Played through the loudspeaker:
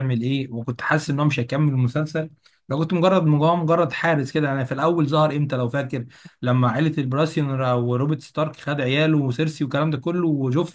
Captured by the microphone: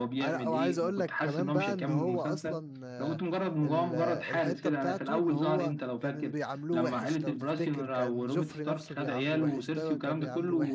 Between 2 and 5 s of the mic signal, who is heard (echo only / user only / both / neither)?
both